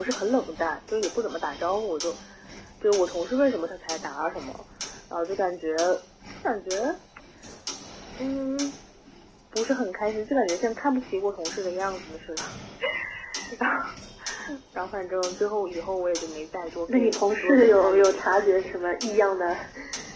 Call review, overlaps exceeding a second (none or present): present